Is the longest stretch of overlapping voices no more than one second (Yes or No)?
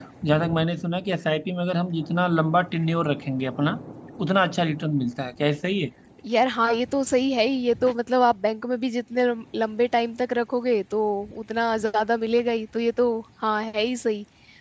Yes